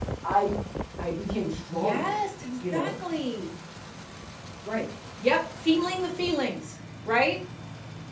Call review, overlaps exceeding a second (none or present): none